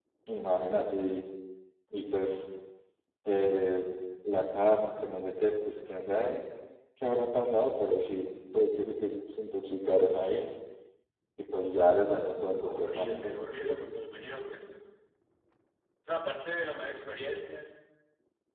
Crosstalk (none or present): present